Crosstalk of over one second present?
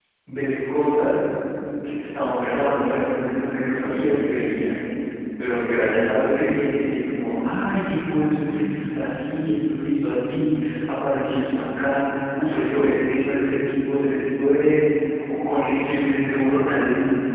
No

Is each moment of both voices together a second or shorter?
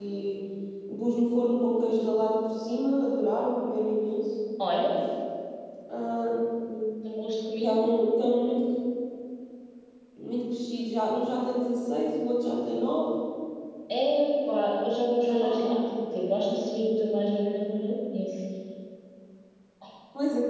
Yes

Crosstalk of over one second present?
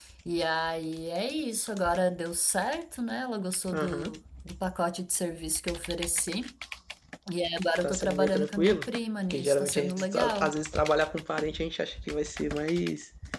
Yes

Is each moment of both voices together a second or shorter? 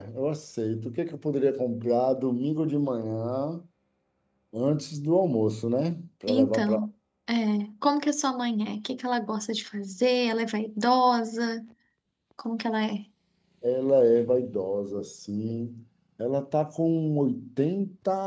Yes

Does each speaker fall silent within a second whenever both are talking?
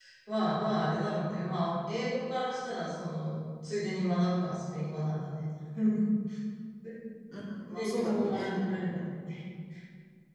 No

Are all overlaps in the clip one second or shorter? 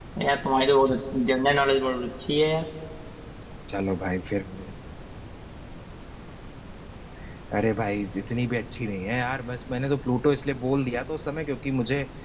Yes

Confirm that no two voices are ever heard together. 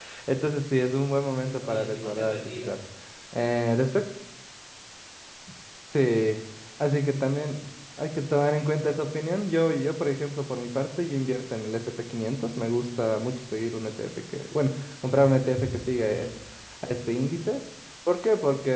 No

